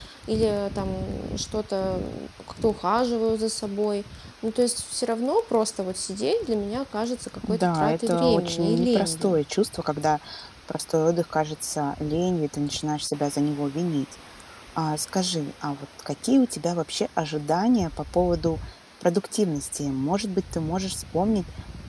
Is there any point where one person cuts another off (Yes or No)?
Yes